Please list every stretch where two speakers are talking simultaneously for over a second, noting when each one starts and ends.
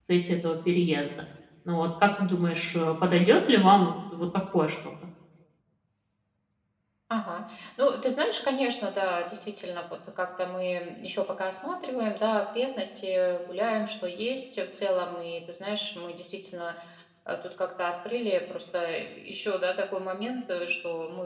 none

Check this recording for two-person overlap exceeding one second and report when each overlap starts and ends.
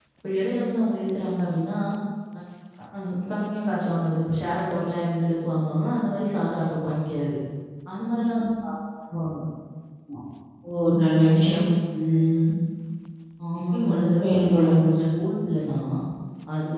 13.7-15.0

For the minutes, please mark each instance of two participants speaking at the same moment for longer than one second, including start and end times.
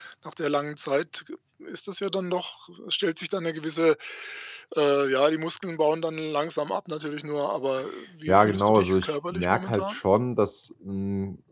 8.3-10.0

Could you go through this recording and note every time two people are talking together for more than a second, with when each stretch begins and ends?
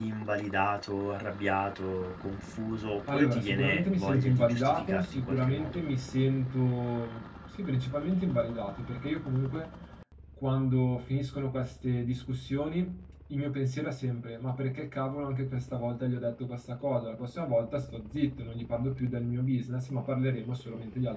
3.1-5.8

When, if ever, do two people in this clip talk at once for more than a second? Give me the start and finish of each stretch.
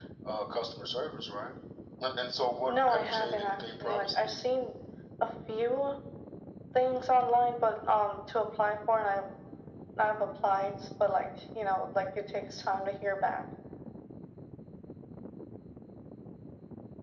2.7-4.3

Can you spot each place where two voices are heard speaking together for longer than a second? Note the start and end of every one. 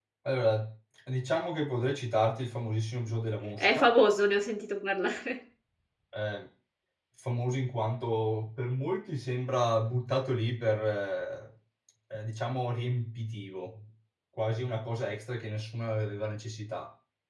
none

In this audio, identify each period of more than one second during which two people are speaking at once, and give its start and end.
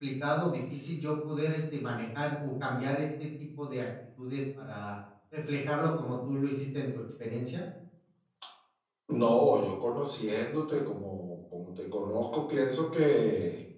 none

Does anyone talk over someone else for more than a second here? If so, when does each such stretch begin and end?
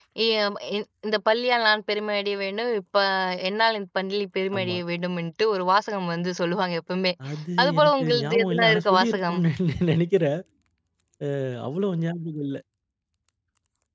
7.6-9.4

